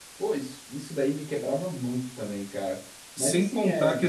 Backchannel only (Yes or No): No